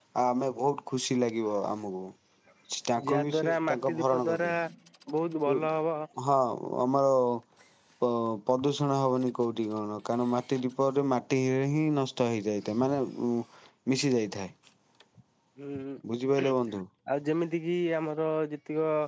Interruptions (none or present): present